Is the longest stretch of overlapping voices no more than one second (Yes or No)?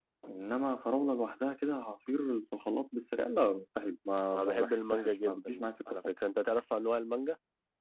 No